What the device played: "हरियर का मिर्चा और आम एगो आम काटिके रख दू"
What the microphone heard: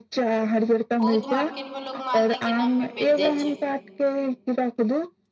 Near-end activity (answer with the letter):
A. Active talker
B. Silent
A